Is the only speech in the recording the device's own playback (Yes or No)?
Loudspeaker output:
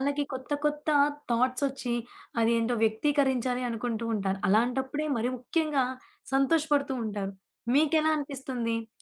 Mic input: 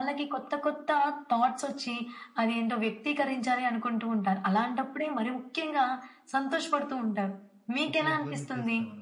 No